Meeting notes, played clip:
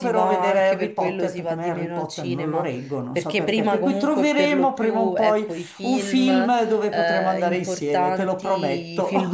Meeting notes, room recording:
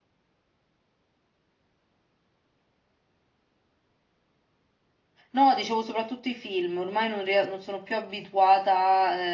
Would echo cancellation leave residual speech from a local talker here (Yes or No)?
Yes